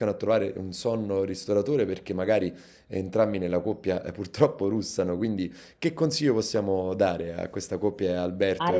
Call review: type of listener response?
taking over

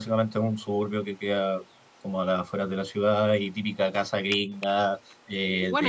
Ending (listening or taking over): taking over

